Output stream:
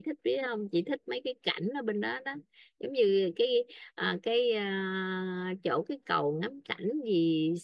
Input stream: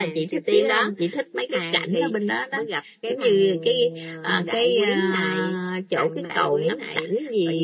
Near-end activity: present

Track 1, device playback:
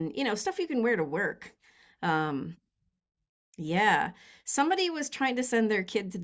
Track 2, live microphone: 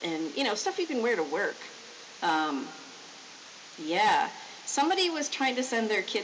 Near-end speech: none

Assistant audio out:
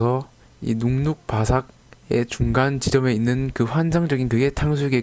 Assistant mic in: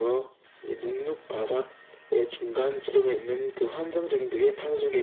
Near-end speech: none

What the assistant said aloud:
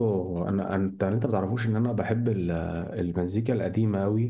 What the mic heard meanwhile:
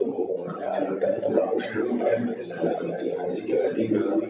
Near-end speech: none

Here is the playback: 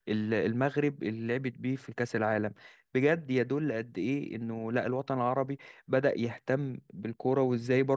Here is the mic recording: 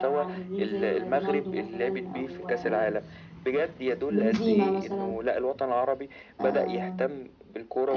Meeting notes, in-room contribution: present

